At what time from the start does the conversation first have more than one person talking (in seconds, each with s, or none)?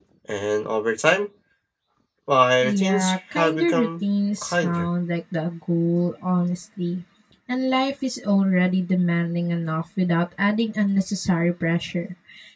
2.6 s